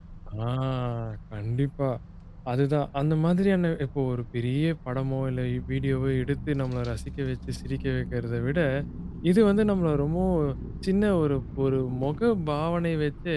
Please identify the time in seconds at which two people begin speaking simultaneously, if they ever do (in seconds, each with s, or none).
none